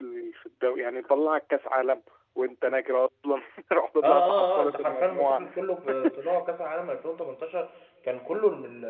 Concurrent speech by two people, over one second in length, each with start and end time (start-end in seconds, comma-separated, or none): 4.0-5.4